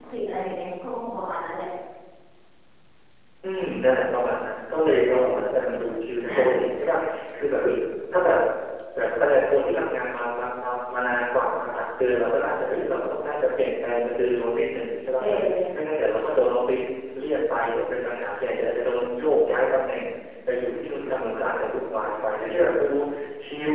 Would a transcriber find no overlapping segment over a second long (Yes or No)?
Yes